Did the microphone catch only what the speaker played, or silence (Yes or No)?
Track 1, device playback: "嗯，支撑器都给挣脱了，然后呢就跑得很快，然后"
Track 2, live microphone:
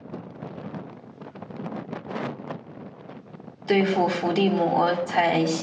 No